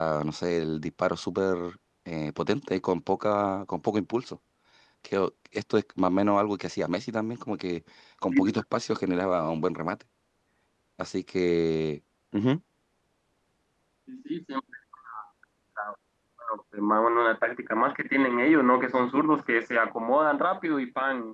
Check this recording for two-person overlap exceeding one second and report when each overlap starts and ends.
none

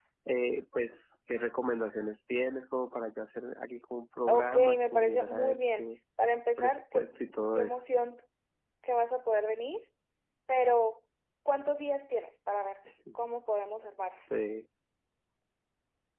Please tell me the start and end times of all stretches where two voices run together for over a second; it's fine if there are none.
4.3-5.9

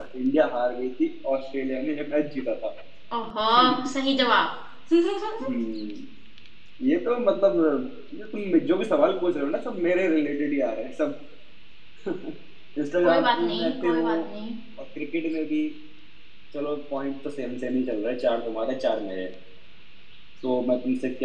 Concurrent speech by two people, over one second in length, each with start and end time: 13.0-14.2

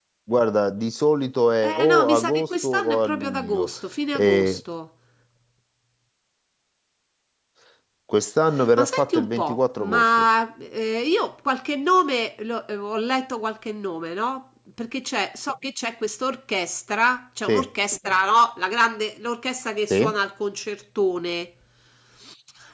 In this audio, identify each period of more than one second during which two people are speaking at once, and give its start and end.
1.7-3.7, 8.8-10.3

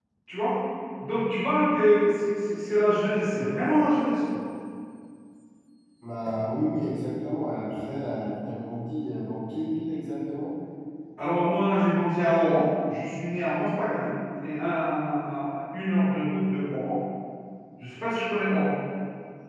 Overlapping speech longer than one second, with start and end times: none

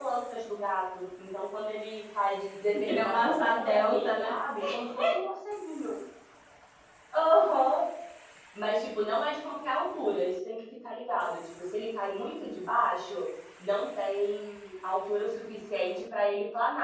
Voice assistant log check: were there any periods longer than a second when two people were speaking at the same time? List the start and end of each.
2.9-4.3

